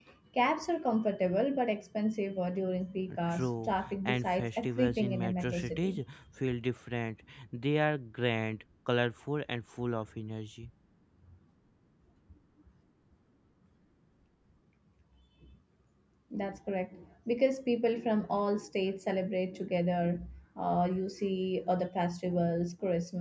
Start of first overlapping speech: 3.3 s

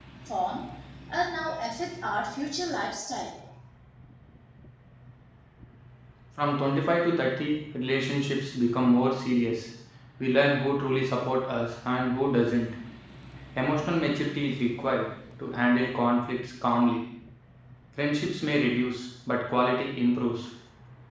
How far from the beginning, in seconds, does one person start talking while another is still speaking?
none

